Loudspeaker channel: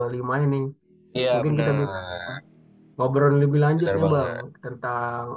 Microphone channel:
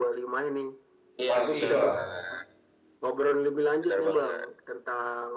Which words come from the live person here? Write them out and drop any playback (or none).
masih Bang,